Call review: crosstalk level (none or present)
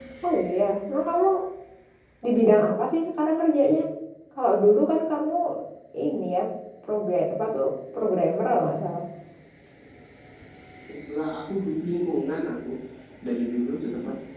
none